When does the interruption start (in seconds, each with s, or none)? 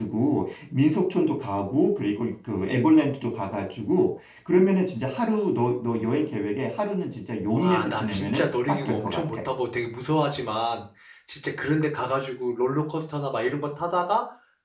7.5 s